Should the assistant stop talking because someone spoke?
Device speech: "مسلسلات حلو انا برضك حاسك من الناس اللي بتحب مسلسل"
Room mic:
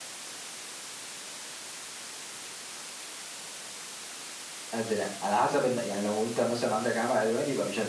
Yes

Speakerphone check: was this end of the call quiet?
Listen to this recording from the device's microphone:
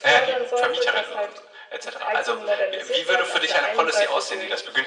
Yes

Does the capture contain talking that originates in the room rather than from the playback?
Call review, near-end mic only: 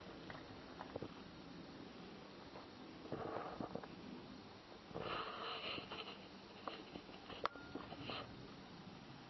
No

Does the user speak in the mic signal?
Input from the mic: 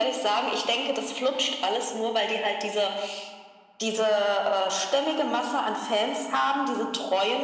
No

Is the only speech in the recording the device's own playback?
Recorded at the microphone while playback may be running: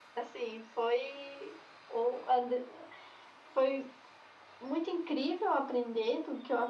Yes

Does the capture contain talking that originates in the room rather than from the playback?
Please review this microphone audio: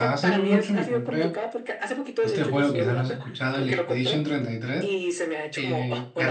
Yes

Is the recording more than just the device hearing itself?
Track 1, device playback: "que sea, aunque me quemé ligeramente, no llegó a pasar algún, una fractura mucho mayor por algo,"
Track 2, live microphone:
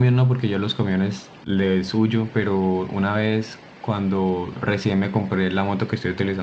Yes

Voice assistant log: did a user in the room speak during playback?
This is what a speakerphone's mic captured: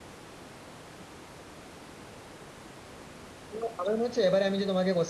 Yes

